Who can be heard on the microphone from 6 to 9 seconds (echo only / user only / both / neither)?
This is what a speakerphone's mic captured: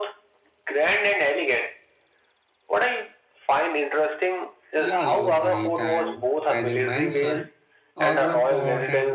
both